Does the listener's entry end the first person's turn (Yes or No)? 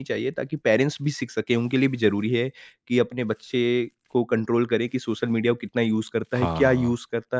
No